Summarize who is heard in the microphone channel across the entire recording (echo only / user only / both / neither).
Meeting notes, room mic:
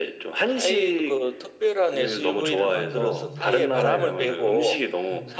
both